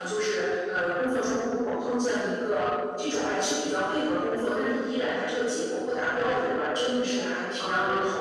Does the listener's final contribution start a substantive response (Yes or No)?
No